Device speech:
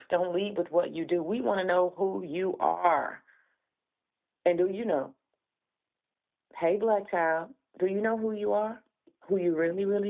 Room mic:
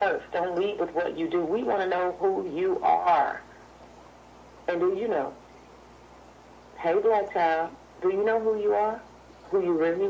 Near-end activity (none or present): none